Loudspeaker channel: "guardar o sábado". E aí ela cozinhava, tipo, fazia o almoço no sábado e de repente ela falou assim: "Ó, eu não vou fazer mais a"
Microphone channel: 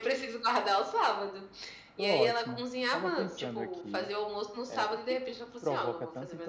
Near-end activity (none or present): present